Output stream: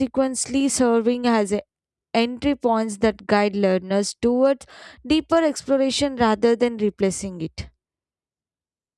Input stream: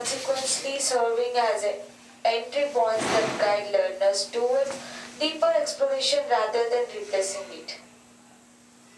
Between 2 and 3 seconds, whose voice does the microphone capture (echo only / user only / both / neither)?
echo only